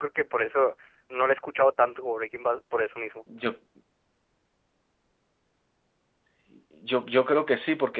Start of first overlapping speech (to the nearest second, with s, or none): none